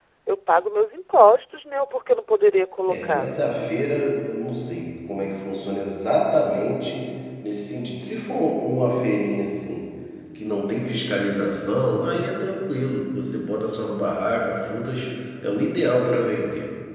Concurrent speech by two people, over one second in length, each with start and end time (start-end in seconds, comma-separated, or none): none